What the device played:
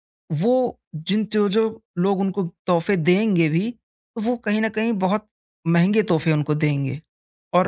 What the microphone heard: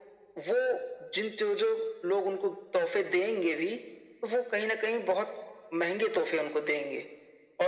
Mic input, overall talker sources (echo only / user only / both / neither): echo only